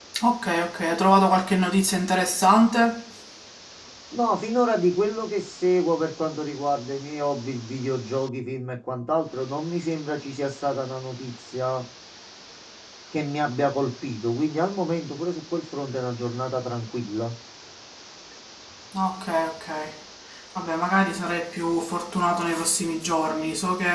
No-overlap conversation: Yes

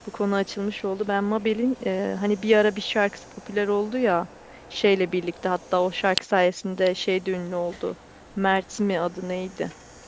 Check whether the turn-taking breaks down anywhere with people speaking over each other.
No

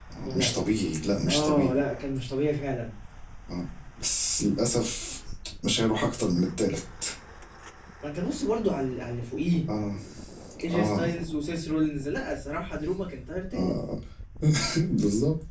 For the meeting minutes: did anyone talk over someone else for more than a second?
No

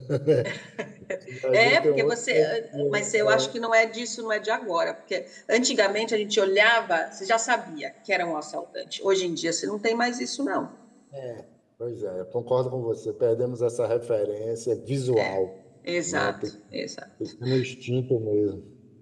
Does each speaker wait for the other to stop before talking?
No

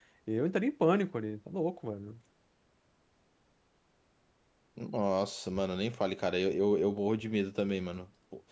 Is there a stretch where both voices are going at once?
No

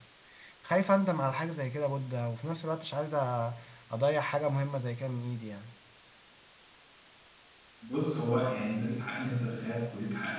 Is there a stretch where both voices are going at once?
No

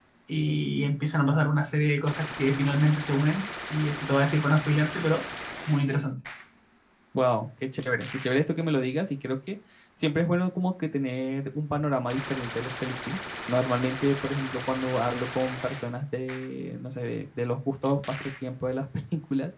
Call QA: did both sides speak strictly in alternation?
Yes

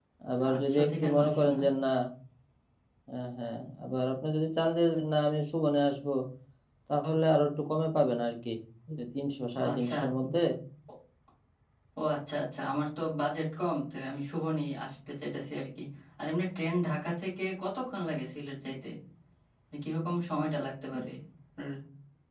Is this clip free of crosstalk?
No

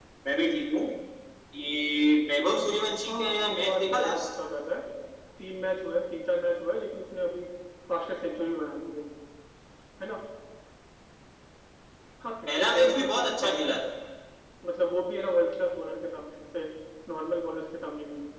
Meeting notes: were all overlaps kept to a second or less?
No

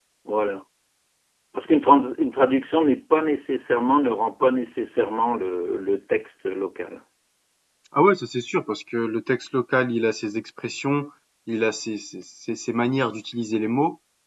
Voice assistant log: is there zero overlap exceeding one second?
Yes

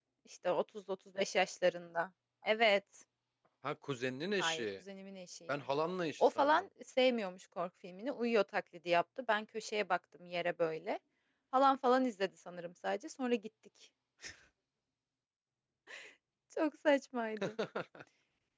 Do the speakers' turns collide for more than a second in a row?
No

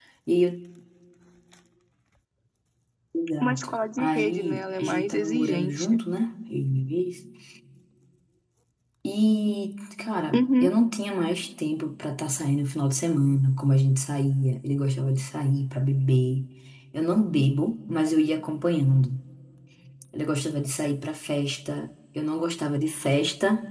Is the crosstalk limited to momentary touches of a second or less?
No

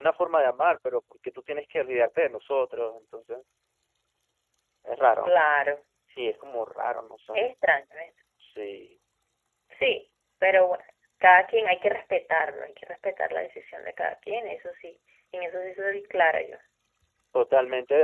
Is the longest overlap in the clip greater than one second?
No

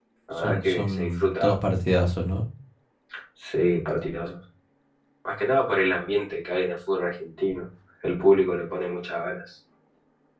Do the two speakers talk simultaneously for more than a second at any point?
Yes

